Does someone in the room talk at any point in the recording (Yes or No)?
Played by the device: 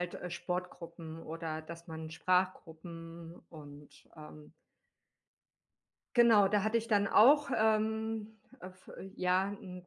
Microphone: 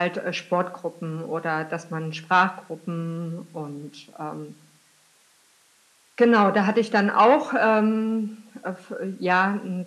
No